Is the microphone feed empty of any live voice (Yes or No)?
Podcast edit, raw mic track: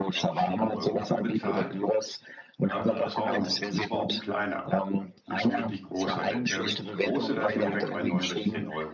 No